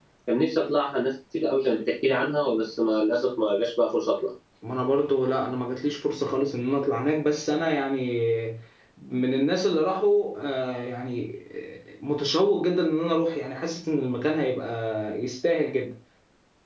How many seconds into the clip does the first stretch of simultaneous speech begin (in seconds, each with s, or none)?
none